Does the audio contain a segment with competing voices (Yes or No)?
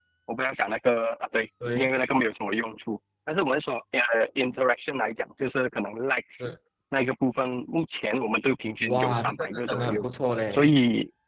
Yes